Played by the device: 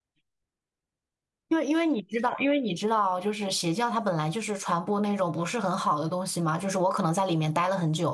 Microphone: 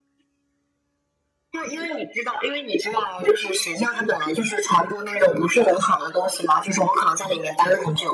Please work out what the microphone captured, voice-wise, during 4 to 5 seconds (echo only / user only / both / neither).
echo only